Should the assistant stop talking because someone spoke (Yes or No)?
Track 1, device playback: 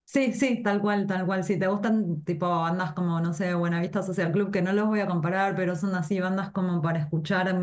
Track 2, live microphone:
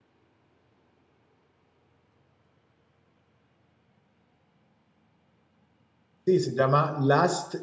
Yes